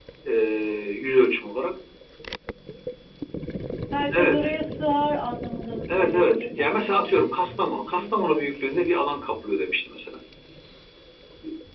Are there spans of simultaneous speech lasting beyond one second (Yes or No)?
Yes